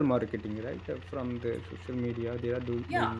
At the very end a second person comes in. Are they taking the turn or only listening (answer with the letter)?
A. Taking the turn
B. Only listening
B